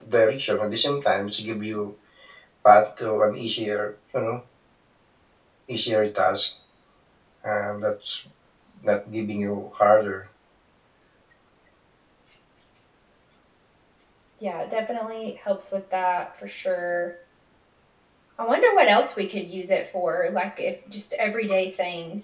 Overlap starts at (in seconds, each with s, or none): none